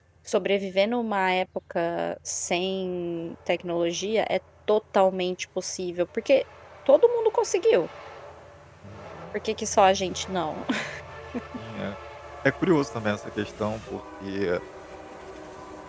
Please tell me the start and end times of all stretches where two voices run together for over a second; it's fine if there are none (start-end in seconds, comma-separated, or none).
none